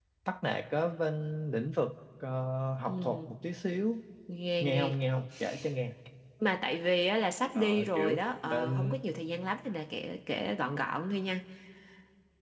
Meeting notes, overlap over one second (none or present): present